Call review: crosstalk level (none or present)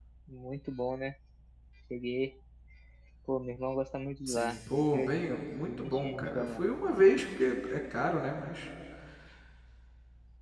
present